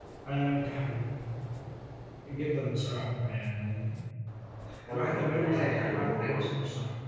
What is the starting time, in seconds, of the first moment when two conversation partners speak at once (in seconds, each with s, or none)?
4.9 s